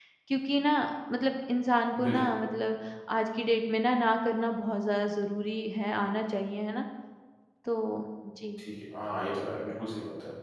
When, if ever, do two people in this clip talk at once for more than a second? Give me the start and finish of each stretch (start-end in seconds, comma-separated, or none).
none